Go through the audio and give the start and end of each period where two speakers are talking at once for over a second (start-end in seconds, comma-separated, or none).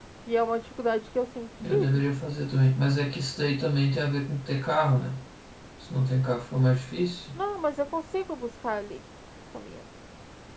none